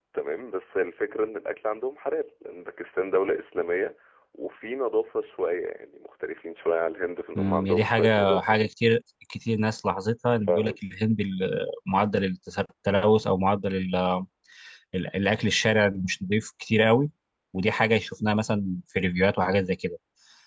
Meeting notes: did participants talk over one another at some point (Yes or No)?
Yes